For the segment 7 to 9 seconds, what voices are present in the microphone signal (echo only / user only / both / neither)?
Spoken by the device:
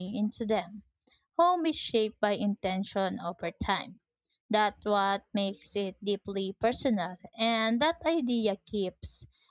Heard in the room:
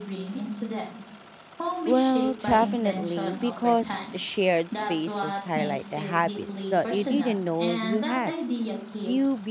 both